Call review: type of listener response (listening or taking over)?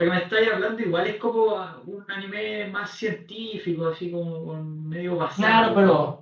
taking over